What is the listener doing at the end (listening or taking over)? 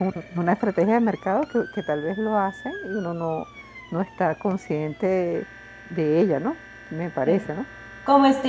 taking over